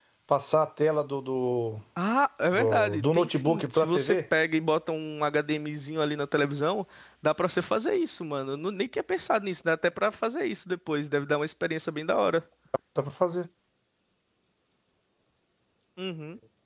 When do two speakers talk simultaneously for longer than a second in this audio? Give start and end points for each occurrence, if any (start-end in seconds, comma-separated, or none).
2.5-4.2